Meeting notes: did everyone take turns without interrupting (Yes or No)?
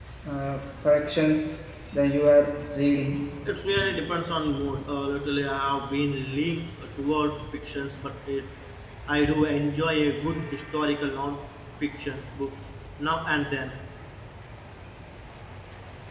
Yes